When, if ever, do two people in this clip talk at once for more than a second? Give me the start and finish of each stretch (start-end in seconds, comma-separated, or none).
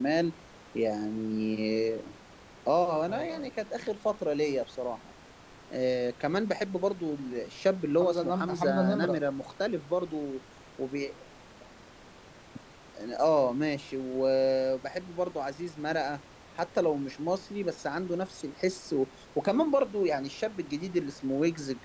8.0-9.2